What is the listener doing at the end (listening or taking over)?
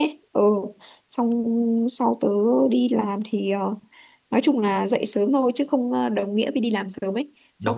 listening